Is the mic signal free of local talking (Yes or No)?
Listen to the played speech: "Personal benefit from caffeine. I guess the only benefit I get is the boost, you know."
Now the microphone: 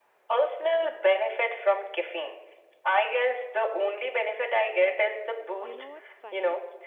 No